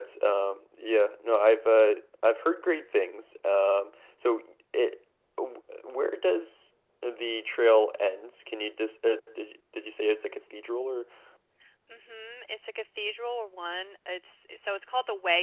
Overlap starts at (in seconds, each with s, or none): none